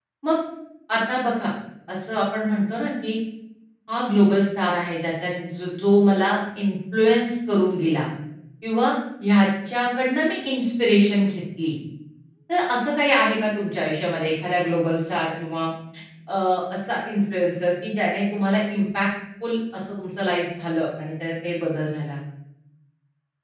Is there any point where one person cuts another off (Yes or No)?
No